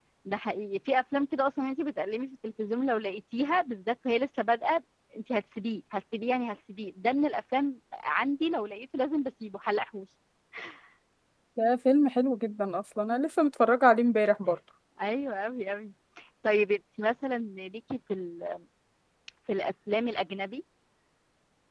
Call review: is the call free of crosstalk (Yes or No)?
Yes